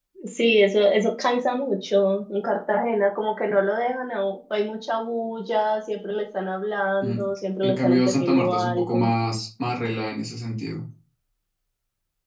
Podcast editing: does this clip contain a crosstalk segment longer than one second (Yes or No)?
Yes